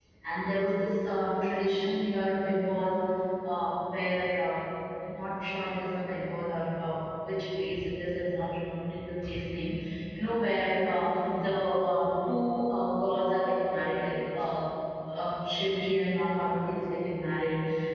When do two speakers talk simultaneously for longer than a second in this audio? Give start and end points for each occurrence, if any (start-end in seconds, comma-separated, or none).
none